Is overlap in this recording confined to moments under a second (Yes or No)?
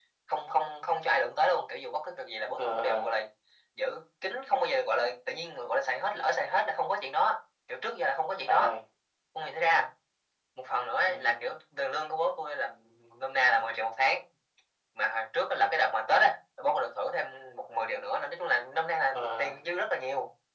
Yes